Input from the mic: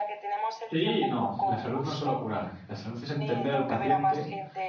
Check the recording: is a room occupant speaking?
Yes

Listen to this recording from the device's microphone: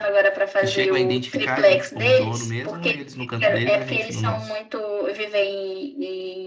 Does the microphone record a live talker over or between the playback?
Yes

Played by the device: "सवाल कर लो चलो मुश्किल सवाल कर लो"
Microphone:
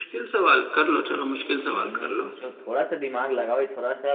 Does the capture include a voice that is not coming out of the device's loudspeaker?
Yes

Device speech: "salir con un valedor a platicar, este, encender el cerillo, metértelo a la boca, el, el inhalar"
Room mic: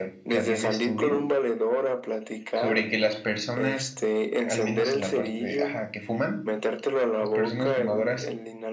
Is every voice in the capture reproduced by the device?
No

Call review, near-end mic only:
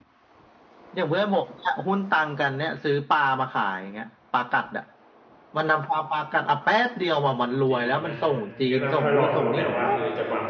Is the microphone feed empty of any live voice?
No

